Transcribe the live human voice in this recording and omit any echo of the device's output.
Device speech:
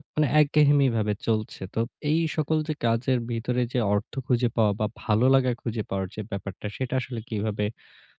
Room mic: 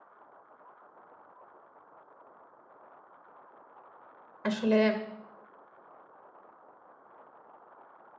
আসলে

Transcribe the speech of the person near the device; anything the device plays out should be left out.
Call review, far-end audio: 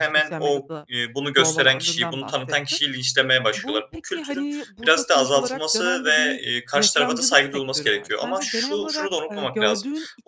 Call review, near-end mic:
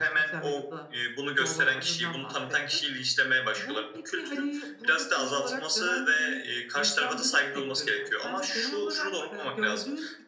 none

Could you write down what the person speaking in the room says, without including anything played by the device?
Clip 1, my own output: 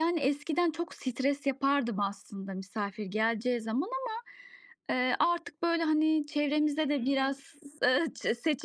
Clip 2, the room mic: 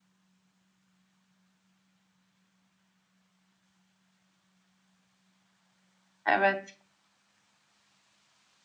Evet.

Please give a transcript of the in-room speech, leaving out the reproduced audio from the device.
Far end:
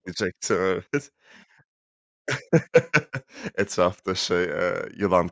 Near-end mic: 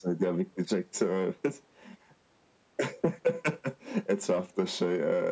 none

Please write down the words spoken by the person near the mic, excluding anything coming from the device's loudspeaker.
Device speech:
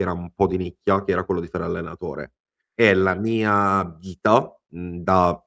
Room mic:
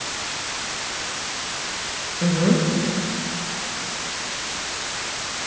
Mh-mh.

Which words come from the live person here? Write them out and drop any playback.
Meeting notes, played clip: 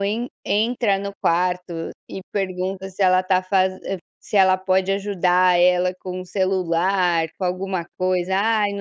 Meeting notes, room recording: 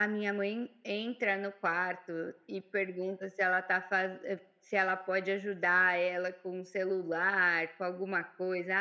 none

